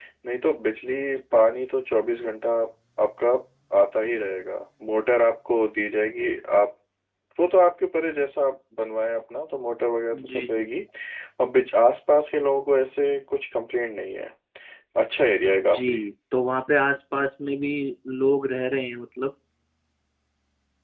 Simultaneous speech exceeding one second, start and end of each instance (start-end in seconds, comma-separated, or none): none